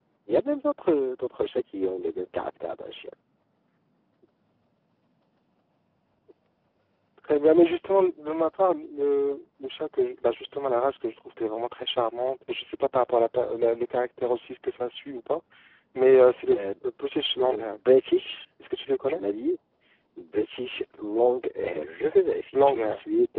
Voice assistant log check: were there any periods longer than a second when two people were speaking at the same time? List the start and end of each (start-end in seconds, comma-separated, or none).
none